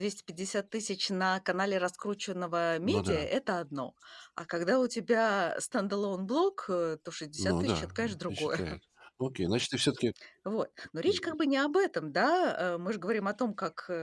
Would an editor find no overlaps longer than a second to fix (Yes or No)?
No